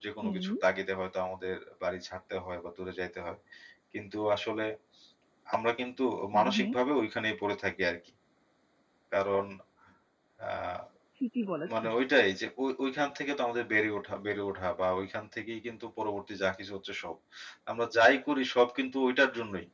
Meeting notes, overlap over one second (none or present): none